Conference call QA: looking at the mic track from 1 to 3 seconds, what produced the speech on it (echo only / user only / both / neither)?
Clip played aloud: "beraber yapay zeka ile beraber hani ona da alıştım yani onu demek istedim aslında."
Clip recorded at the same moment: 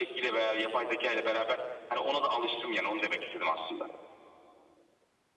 echo only